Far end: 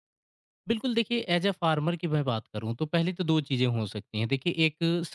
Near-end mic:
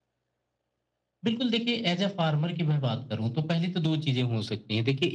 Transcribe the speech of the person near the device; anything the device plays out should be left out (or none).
none